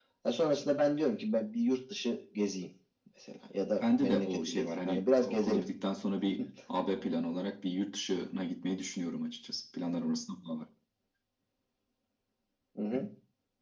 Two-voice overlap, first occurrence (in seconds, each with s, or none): 3.8 s